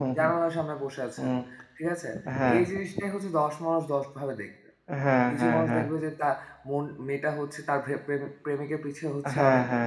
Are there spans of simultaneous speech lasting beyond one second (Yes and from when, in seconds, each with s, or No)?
No